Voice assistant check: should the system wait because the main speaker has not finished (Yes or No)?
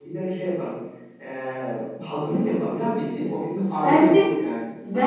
No